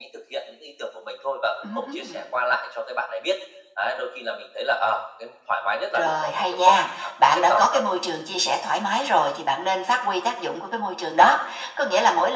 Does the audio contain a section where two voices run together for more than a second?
Yes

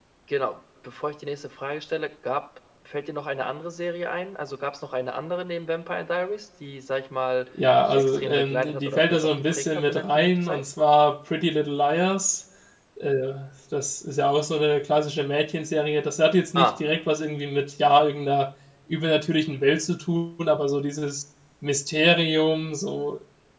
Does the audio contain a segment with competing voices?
Yes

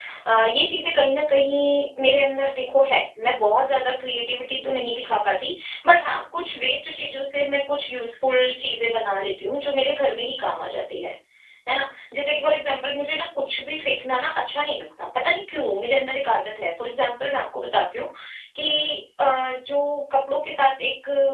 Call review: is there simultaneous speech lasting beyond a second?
No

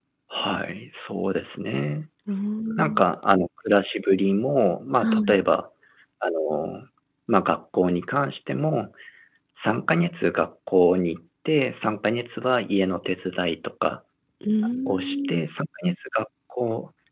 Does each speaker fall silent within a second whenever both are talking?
Yes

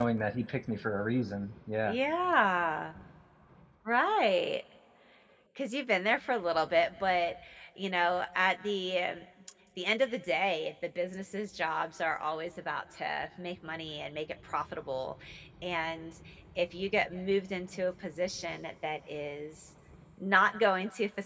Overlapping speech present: No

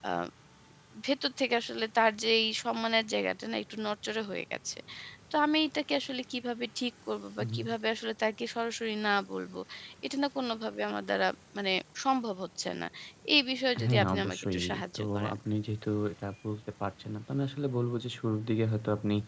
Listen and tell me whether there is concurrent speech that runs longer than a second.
Yes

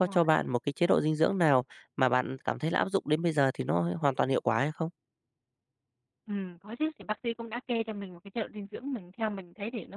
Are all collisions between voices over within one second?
Yes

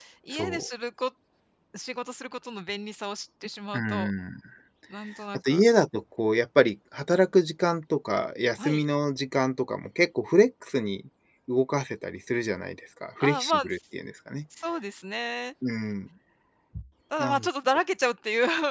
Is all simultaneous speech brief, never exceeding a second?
Yes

